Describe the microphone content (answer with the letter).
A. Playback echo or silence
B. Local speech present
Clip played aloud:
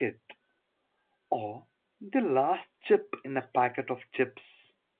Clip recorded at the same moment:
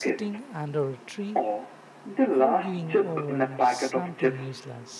B